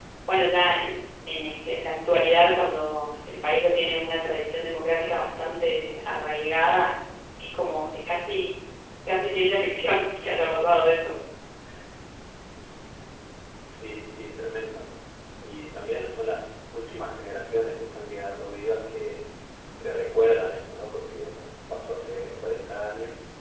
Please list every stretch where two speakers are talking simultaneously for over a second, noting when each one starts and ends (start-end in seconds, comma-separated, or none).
none